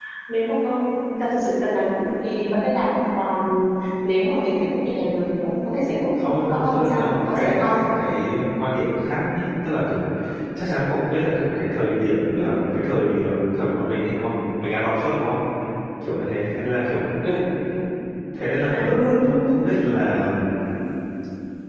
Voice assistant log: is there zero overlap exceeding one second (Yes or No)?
No